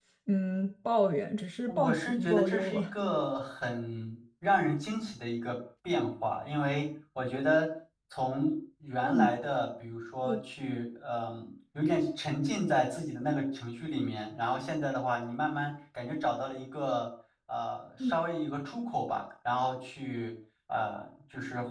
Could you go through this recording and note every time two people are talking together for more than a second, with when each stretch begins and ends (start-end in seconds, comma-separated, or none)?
1.7-2.9